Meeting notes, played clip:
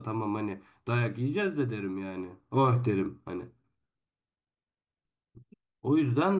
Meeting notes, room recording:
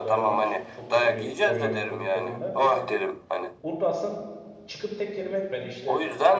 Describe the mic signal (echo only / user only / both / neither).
both